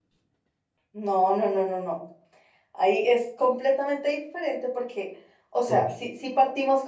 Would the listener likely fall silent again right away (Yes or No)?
Yes